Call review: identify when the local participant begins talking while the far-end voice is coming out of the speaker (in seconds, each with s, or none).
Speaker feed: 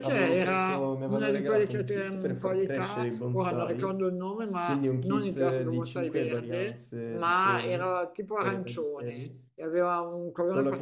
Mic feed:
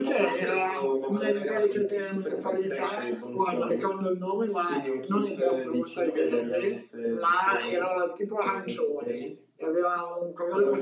none